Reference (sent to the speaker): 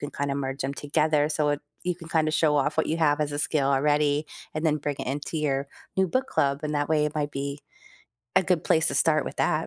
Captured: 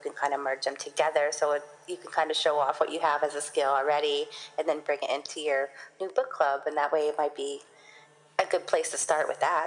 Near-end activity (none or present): none